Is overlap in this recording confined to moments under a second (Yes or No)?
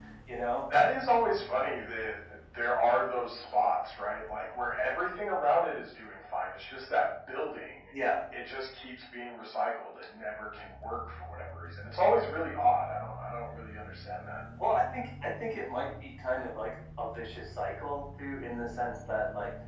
Yes